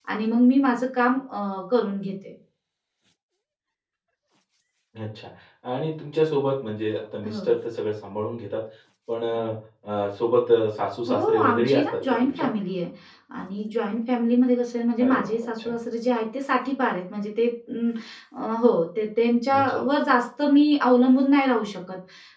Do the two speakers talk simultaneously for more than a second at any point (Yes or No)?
Yes